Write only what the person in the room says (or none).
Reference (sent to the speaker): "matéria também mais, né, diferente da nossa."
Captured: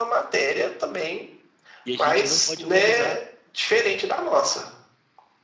E a gente não pode humanizar.